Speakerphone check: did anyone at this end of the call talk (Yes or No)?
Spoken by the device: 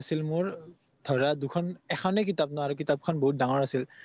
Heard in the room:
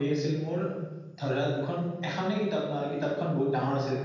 No